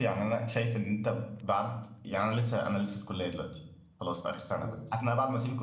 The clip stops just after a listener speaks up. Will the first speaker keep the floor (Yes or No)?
Yes